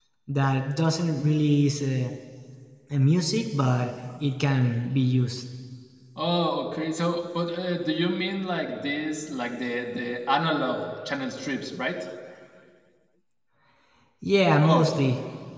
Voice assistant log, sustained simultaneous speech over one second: none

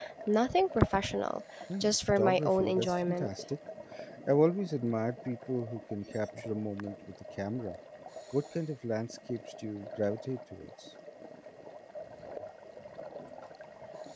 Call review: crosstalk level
present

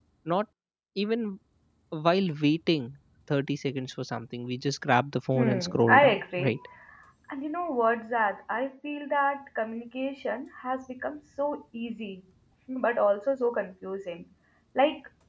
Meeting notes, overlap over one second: present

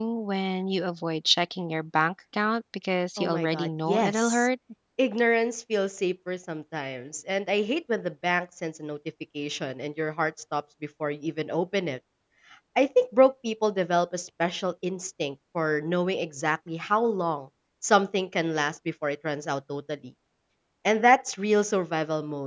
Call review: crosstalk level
present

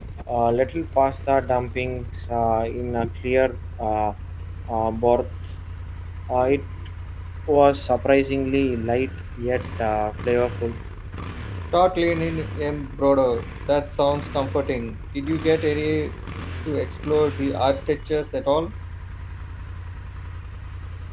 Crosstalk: none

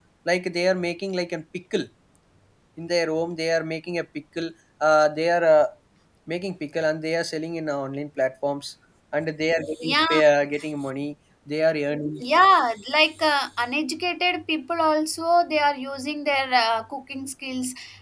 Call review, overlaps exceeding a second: none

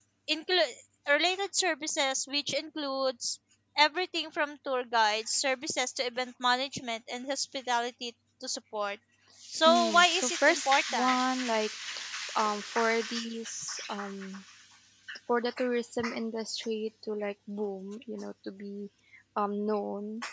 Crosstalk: present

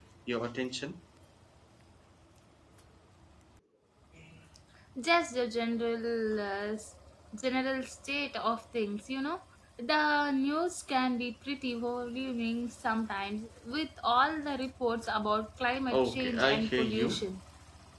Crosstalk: present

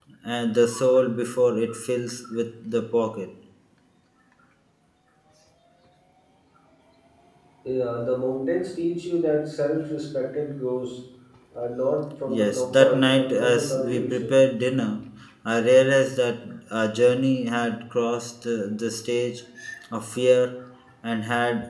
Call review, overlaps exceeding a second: present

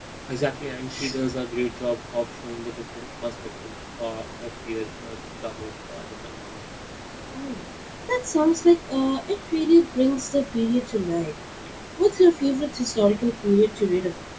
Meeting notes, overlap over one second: none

